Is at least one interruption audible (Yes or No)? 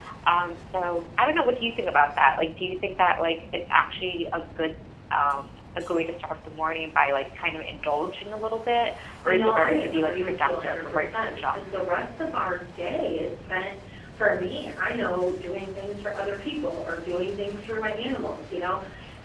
Yes